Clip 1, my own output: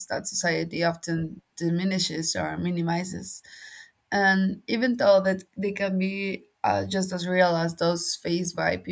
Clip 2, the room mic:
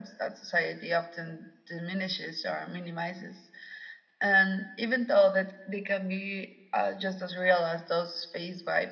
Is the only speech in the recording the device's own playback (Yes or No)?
Yes